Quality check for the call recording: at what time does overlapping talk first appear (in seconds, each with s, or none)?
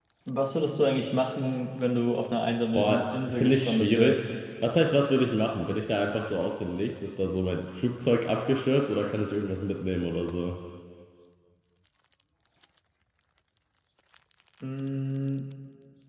2.7 s